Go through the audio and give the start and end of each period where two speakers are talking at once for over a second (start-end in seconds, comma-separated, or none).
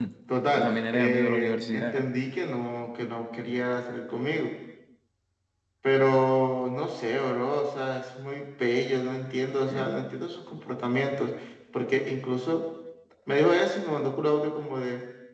0.6-2.0